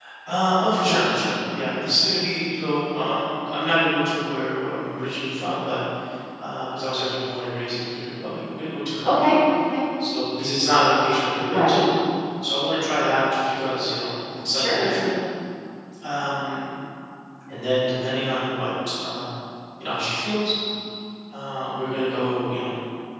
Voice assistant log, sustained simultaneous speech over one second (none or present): none